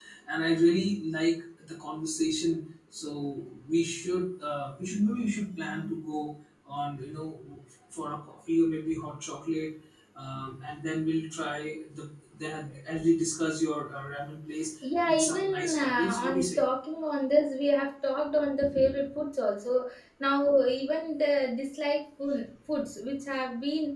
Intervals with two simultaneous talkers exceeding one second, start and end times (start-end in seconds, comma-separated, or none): 15.0-16.6